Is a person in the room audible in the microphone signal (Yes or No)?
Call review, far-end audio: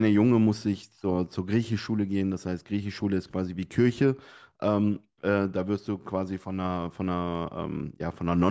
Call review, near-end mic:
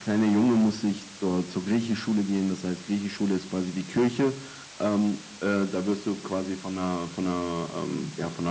No